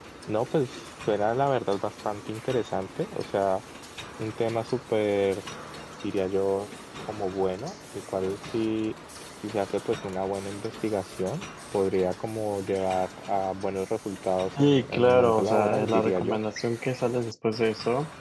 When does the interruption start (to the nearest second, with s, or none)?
15 s